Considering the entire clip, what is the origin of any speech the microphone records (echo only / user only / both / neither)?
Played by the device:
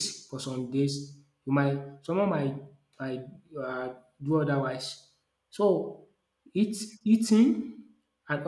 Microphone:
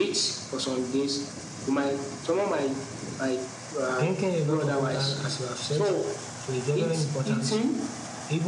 both